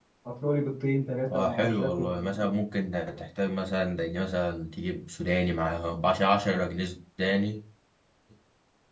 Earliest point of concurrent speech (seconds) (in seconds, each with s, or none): 1.3 s